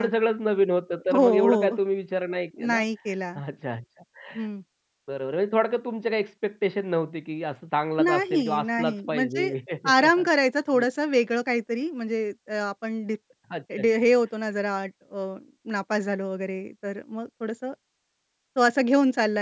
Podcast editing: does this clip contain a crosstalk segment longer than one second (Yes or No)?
Yes